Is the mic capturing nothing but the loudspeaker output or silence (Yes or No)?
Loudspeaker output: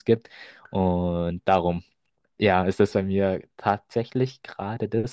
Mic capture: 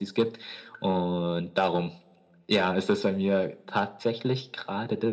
Yes